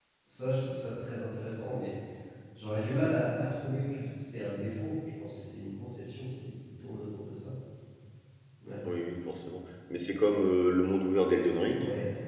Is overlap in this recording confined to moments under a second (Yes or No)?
Yes